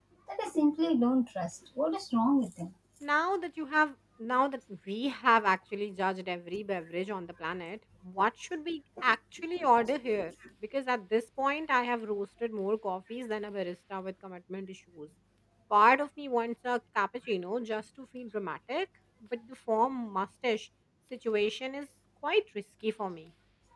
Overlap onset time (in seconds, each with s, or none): none